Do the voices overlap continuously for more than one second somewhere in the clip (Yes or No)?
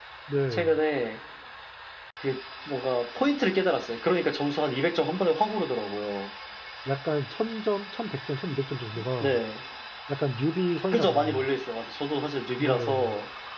No